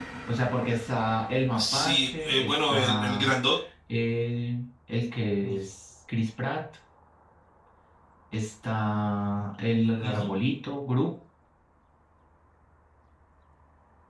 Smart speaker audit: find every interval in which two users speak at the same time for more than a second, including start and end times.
1.6-3.3

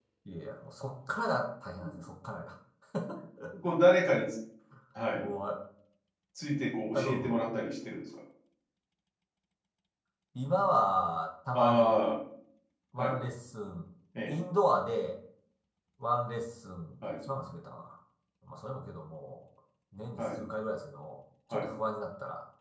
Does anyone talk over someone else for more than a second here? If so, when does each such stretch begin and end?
none

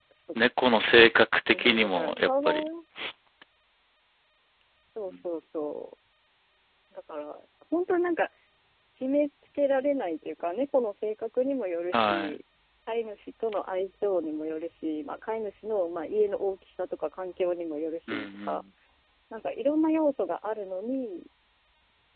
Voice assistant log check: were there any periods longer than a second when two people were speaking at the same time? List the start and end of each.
1.5-2.7

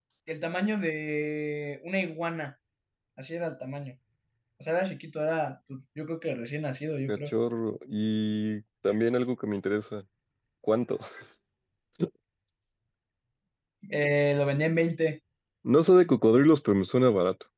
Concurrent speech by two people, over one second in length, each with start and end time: none

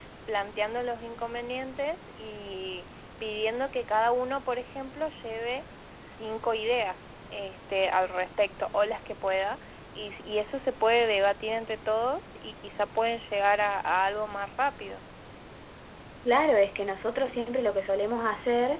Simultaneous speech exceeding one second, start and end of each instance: none

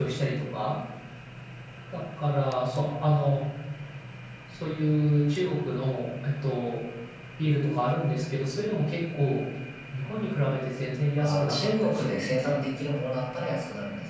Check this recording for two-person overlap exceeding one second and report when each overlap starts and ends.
11.2-12.6

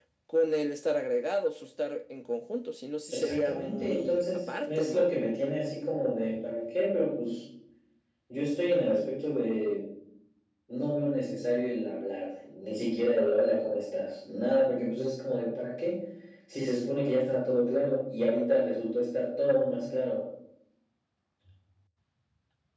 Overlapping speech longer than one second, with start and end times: 3.1-5.1

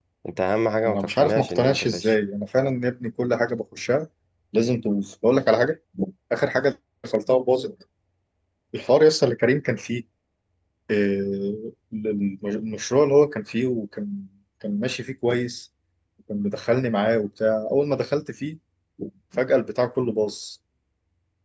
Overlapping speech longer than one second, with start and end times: 0.8-2.1

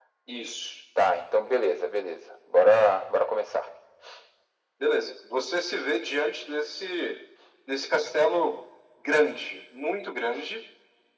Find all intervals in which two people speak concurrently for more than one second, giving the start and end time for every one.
none

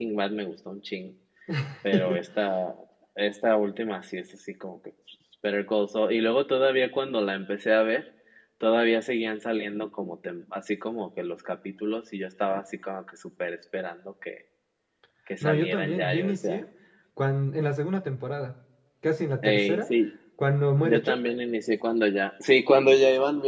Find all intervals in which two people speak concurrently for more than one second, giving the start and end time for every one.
15.4-16.6

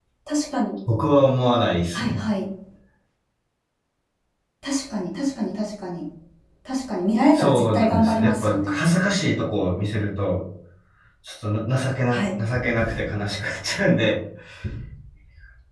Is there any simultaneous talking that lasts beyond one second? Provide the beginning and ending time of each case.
7.3-8.8

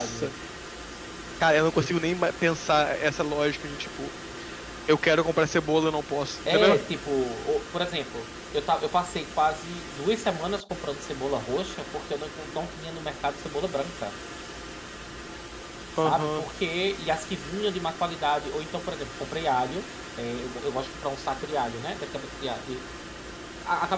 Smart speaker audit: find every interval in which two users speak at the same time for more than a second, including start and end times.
none

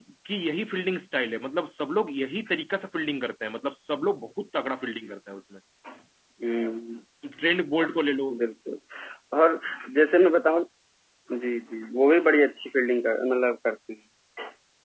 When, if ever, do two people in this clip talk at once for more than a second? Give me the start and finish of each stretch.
none

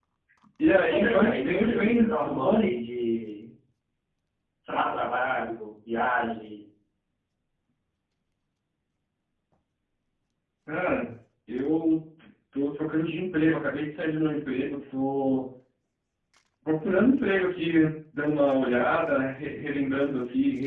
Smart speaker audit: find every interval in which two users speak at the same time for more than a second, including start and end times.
0.8-2.7

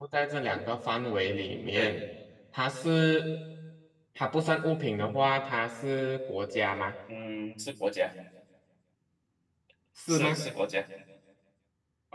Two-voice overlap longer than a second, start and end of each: none

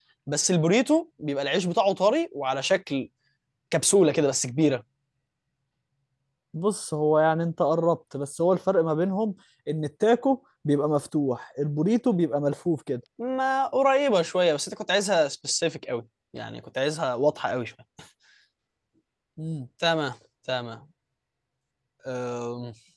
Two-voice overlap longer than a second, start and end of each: none

